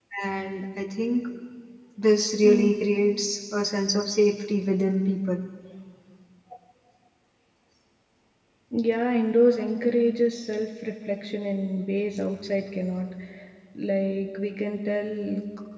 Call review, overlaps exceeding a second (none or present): none